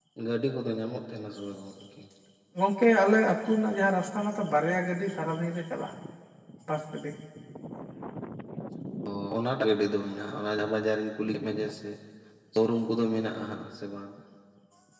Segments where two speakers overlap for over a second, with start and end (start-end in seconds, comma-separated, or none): none